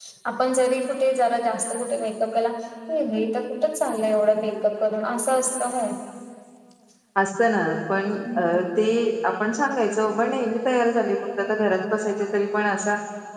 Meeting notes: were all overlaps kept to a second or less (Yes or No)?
Yes